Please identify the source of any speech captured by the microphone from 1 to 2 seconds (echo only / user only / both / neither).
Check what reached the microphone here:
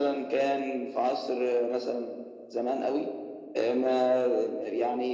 echo only